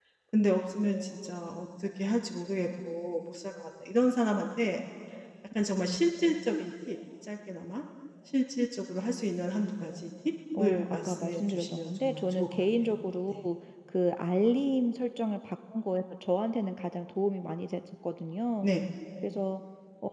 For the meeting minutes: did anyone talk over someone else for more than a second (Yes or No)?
Yes